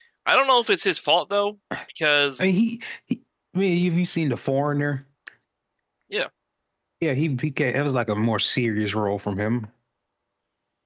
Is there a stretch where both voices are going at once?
No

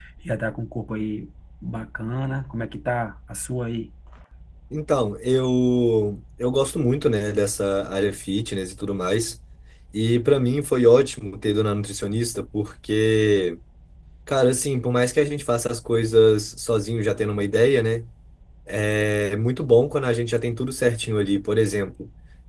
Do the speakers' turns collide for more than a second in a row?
No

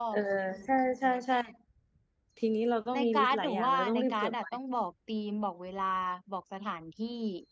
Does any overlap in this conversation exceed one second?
Yes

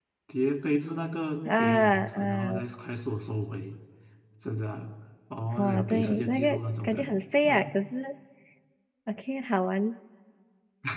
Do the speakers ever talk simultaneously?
Yes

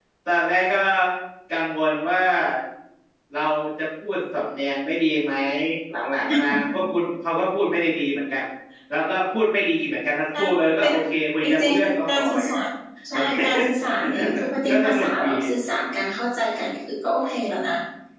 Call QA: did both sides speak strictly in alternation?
No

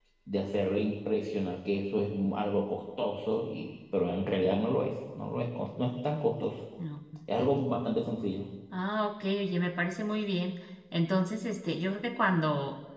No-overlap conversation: Yes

